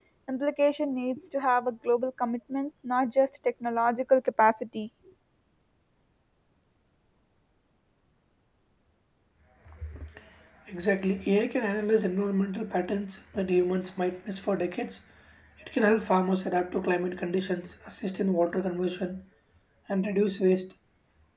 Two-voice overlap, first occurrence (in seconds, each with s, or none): none